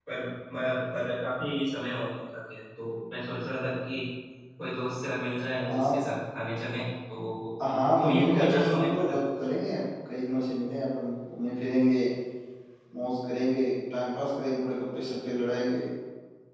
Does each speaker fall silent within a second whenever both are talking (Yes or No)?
No